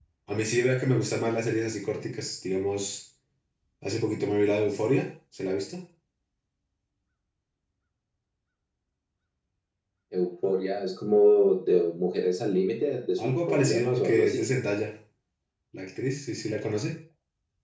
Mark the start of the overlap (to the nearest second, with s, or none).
13 s